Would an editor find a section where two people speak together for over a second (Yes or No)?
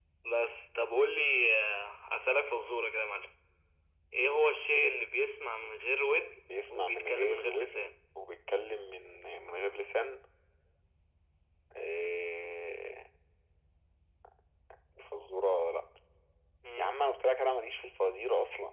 Yes